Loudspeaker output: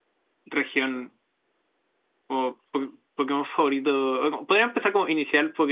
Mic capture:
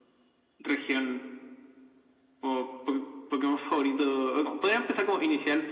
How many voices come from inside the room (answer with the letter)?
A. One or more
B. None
B